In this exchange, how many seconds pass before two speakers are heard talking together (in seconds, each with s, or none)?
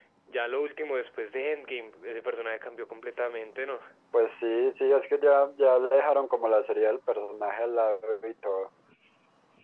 none